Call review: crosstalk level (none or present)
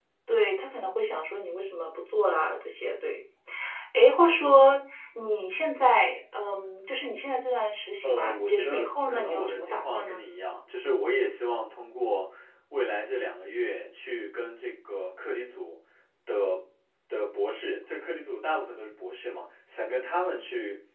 present